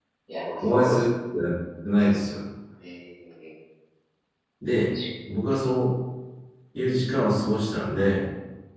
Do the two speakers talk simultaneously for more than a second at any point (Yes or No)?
No